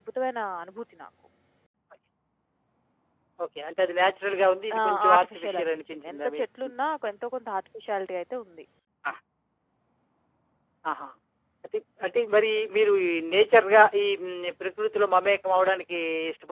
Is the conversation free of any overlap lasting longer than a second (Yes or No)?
No